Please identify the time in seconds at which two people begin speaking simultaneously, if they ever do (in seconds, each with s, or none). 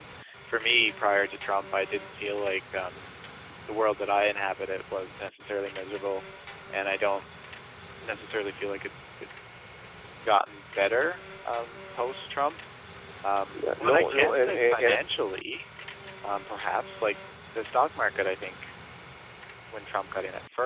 13.5 s